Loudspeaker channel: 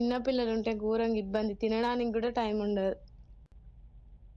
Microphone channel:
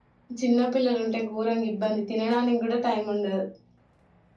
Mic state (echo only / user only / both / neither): echo only